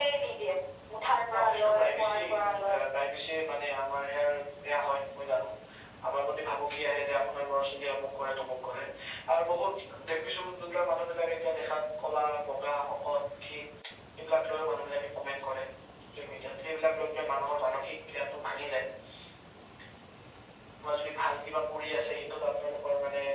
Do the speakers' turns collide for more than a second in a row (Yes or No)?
Yes